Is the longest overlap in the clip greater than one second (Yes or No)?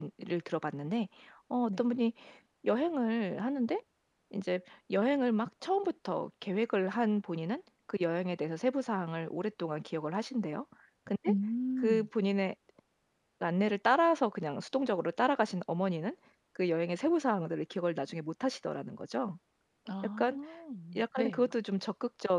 No